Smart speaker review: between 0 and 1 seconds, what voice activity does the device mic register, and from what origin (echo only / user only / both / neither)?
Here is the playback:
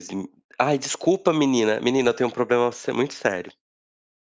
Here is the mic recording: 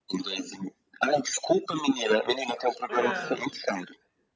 echo only